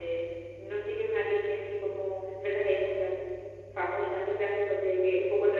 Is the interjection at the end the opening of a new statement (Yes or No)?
No